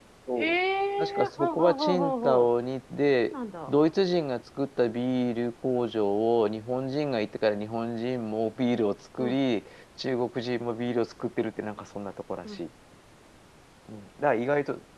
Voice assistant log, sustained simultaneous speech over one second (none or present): present